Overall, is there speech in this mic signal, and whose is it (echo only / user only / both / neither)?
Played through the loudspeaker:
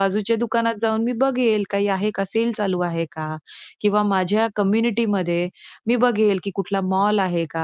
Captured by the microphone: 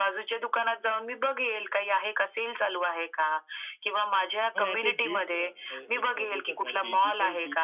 both